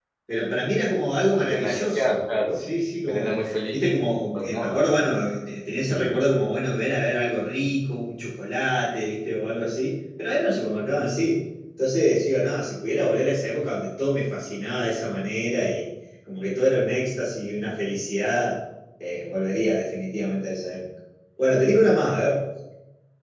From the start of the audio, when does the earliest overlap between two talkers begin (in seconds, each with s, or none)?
1.3 s